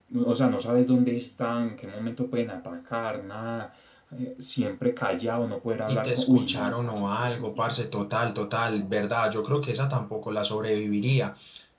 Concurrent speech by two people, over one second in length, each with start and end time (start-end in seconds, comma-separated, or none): 5.9-7.6